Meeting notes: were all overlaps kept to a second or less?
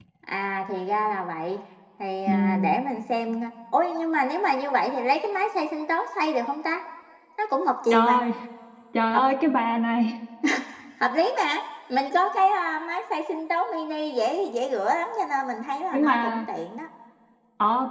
Yes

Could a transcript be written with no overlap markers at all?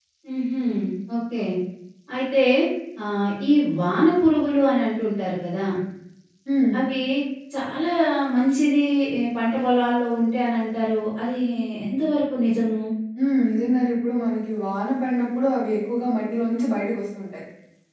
Yes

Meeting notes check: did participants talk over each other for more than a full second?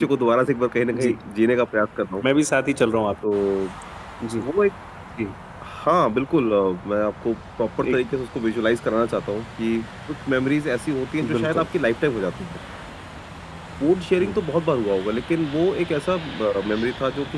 No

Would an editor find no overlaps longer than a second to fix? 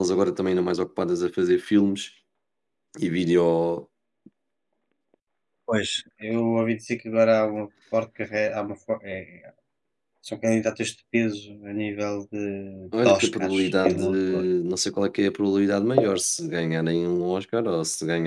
No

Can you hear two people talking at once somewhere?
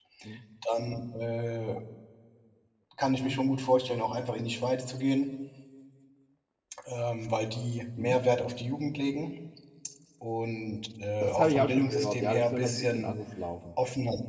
Yes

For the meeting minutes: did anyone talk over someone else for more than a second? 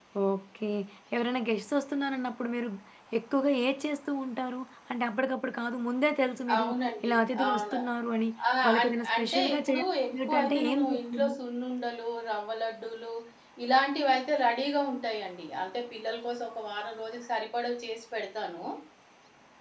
Yes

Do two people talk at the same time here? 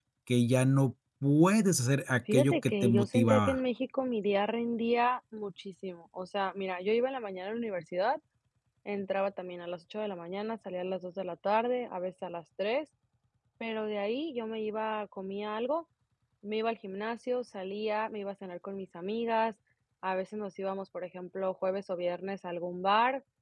Yes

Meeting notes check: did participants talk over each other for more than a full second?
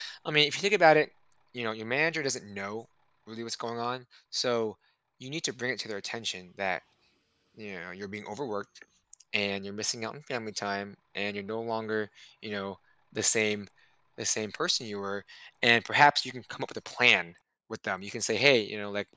No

